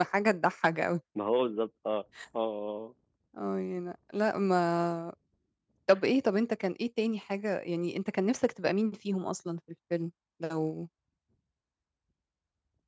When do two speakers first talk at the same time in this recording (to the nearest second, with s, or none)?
none